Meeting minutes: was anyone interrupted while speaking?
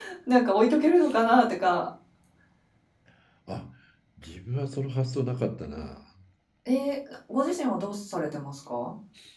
No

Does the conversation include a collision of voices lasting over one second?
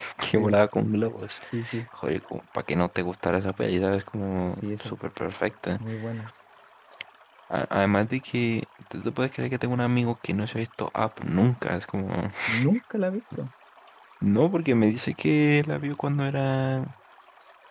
No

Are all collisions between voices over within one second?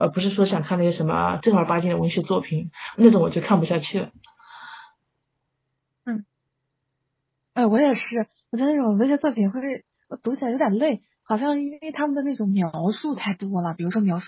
Yes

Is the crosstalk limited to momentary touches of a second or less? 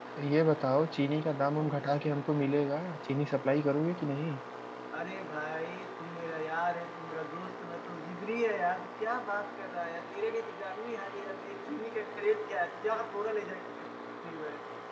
Yes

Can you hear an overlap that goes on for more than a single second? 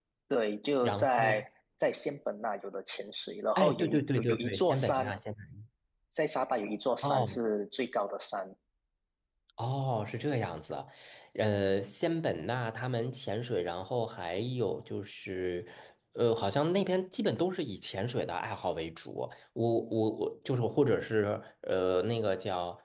Yes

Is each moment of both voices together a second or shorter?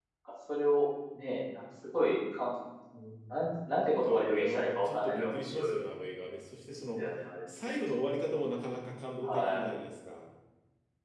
No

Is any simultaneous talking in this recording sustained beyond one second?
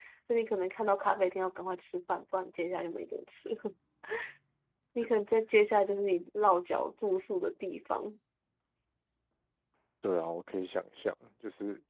No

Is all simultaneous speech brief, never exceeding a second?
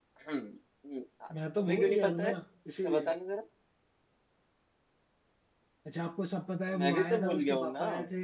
No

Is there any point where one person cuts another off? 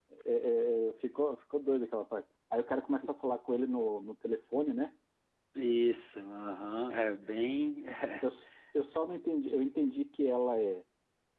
No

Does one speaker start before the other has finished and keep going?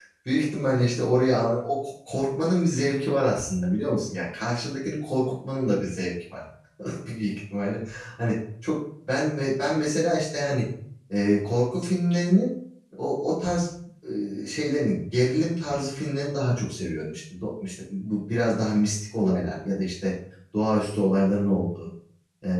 No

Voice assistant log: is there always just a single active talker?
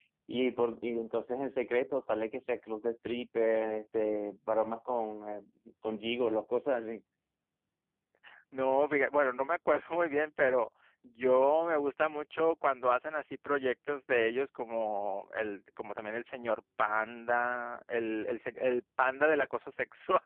Yes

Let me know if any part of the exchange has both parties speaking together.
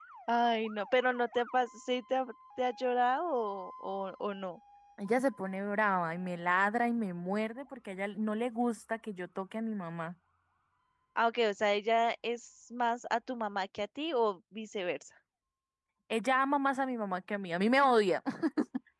No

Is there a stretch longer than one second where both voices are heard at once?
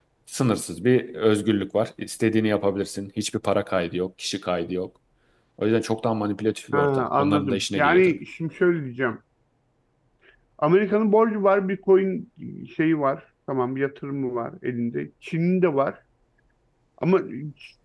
Yes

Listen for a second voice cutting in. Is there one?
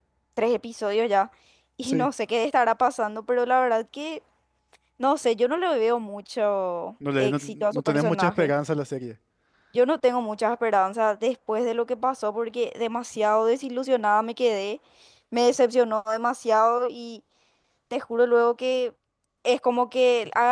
Yes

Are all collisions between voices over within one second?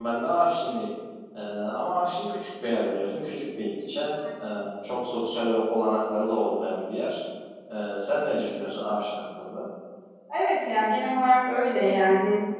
Yes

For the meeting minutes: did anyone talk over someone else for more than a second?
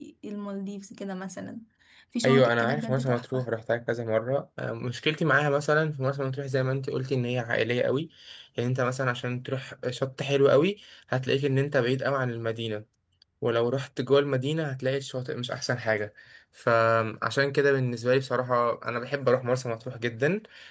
Yes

